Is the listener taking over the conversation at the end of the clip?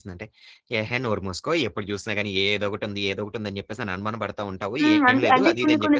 Yes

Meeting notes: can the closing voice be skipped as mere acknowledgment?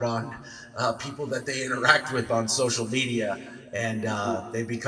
Yes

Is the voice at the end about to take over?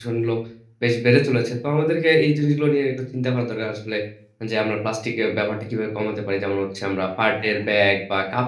No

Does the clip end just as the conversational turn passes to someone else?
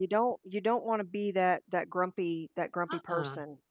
Yes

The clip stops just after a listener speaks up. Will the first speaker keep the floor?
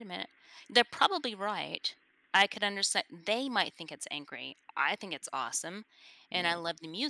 Yes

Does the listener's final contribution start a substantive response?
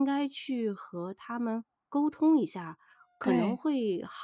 No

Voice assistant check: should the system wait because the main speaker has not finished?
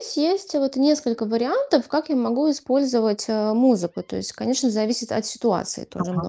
No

